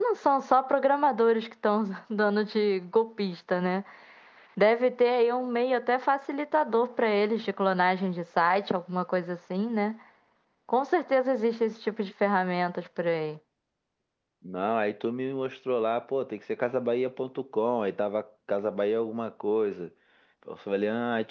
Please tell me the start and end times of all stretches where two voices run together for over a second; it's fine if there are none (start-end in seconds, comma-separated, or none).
none